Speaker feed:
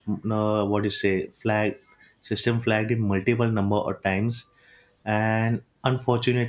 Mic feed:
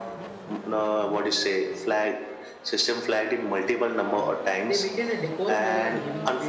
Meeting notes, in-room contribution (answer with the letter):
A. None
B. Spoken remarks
B